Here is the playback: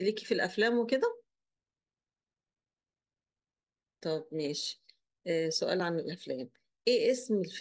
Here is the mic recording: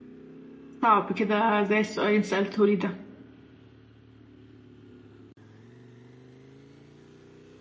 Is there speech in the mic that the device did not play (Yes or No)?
Yes